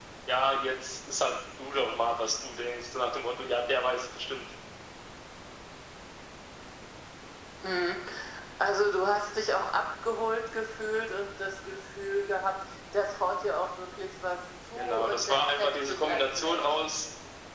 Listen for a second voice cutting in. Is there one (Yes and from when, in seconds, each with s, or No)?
Yes, from 14.8 s